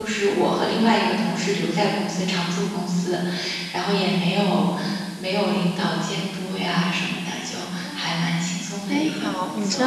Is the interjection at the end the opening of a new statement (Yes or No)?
Yes